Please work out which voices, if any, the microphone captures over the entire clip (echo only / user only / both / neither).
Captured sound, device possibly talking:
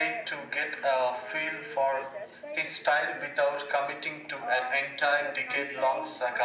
both